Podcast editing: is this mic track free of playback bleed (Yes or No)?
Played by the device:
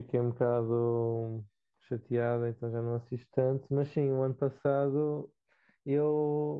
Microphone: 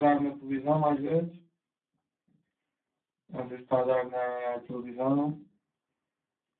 Yes